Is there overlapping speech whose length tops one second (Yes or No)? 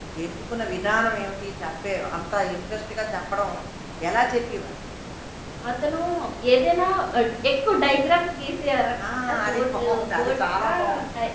Yes